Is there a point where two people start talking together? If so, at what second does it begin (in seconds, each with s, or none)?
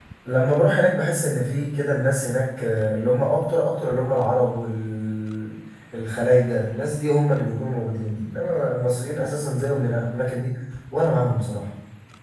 none